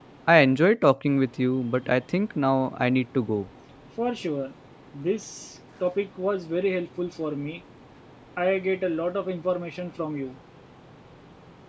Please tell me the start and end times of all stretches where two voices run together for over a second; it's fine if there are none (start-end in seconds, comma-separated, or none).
none